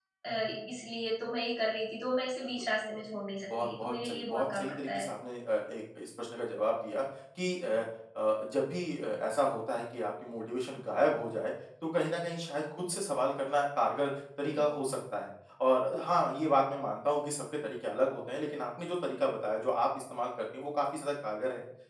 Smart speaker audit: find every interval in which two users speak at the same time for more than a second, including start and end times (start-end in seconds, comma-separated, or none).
3.5-5.1